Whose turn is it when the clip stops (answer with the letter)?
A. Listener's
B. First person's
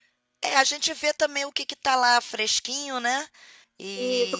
A